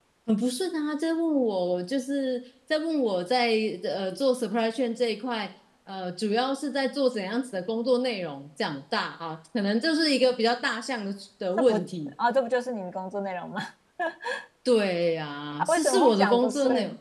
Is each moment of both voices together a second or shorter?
No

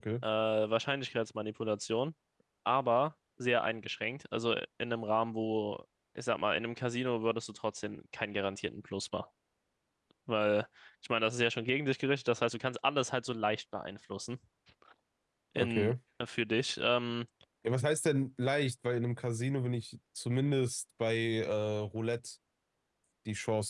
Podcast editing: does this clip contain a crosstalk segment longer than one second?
No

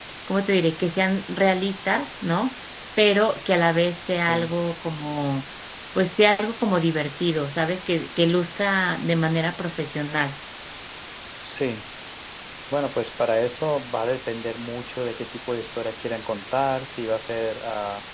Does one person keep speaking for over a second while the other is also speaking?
No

